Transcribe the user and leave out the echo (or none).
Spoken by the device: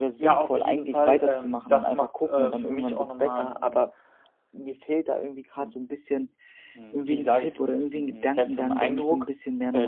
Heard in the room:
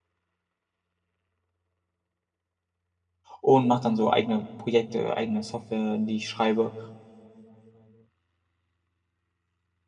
und mache dann so eigene Projekte, eigene Software, die ich schreibe.